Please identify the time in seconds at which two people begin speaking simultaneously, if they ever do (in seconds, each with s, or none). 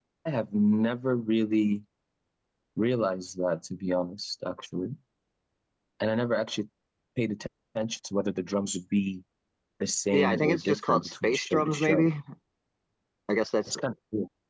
10.1 s